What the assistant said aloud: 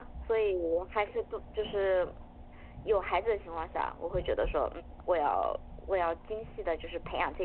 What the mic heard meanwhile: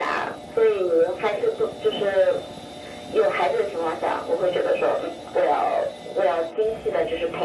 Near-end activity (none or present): none